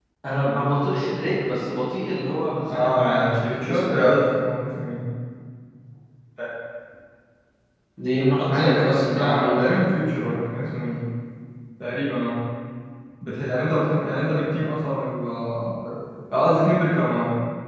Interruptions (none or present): present